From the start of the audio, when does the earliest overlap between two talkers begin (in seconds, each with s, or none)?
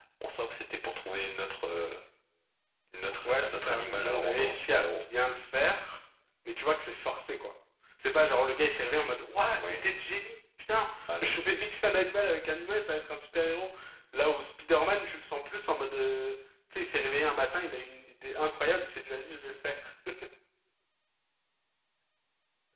3.2 s